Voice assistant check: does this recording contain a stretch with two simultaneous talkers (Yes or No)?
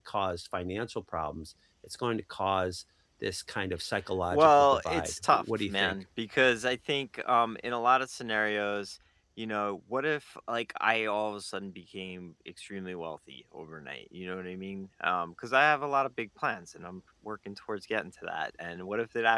Yes